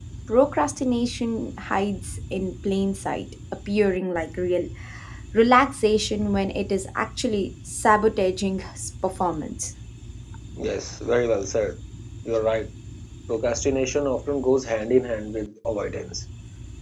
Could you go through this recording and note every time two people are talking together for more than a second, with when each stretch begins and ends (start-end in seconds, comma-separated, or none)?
none